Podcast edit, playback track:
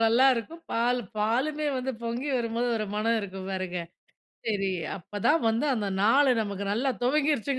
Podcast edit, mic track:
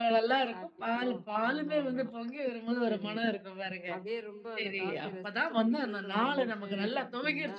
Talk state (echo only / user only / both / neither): both